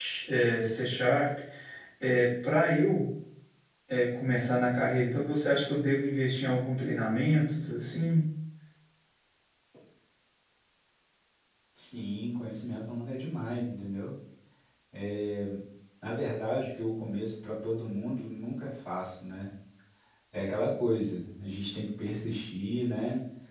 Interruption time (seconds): none

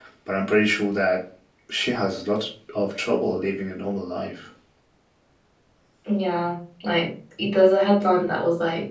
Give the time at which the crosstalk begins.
none

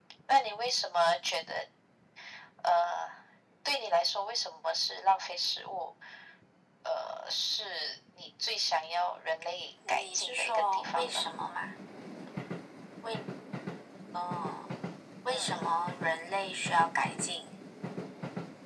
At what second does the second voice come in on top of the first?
9.9 s

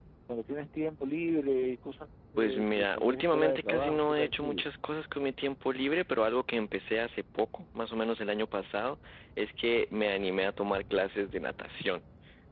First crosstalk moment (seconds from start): 2.4 s

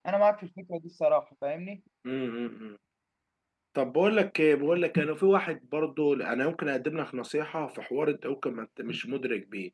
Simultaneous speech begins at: none

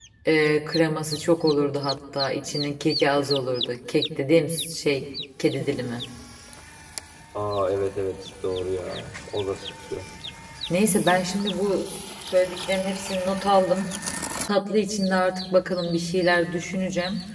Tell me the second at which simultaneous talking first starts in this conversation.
none

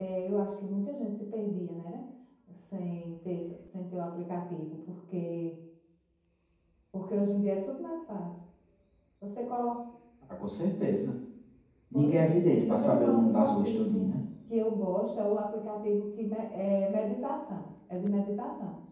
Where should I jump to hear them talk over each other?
11.9 s

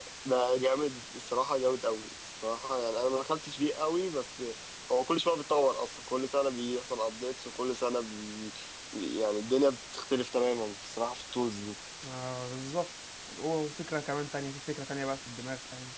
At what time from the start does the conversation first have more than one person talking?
none

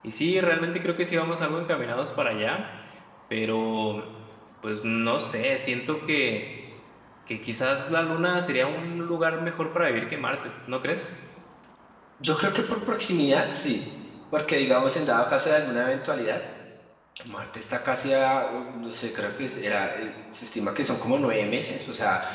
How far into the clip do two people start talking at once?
none

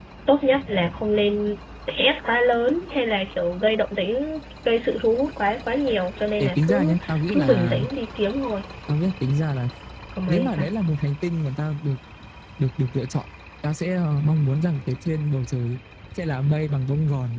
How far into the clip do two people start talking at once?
6.4 s

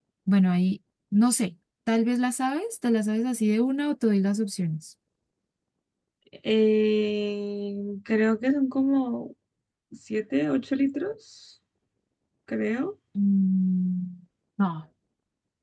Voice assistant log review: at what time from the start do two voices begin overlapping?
none

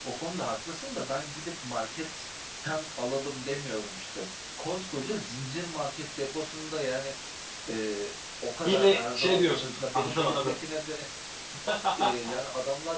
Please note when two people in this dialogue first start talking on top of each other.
8.7 s

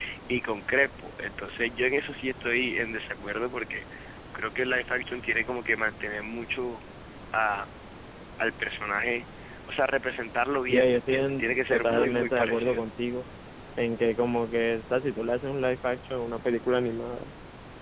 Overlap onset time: 10.7 s

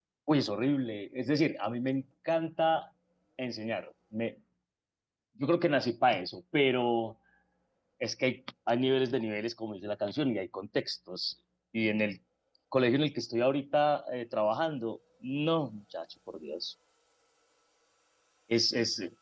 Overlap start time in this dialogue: none

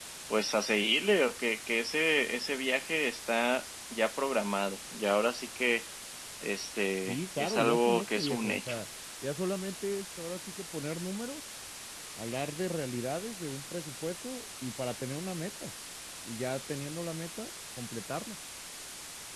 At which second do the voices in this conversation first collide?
7.1 s

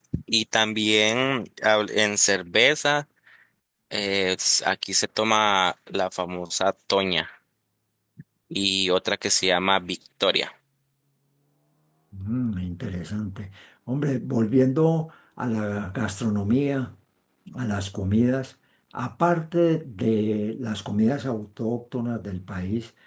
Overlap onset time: none

